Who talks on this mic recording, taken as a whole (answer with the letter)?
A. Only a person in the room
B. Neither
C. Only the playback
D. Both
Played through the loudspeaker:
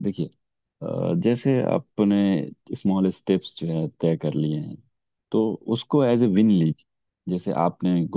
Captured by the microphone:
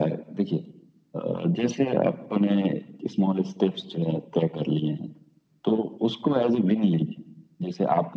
C